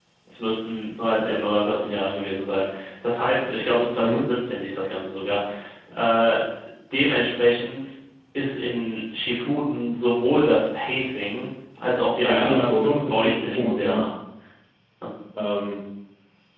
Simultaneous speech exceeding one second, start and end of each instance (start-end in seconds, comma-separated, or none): 12.3-14.0